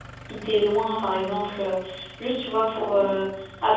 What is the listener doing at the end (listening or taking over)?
listening